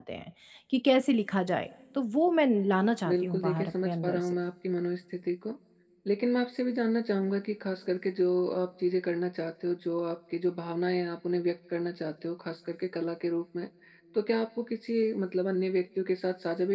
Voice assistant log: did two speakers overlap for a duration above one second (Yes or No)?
Yes